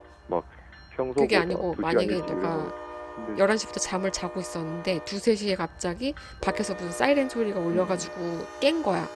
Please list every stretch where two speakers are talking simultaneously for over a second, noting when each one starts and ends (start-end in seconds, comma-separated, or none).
1.2-2.7